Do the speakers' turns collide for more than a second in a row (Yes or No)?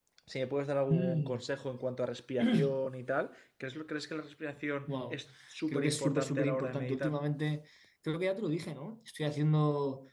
Yes